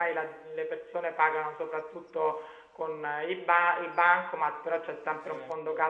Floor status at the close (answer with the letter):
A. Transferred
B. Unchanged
B